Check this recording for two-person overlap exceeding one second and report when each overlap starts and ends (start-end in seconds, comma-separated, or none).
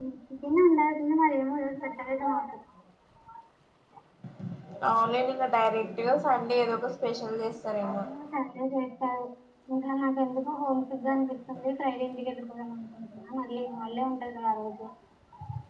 none